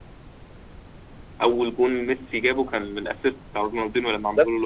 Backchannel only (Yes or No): No